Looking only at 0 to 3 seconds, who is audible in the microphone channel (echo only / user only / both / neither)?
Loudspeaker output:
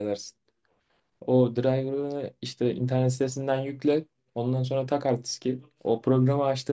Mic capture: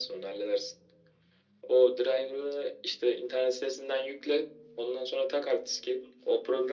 echo only